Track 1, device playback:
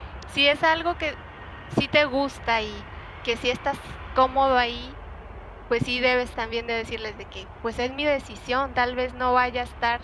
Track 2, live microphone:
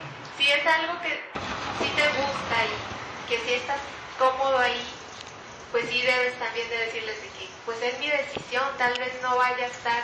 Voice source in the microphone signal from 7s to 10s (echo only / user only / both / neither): echo only